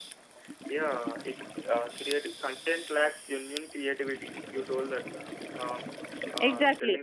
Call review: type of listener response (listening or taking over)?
taking over